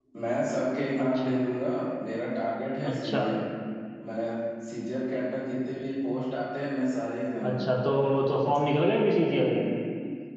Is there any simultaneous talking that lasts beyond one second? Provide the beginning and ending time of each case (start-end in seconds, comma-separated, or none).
none